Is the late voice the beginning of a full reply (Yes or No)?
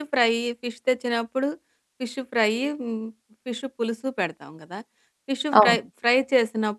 No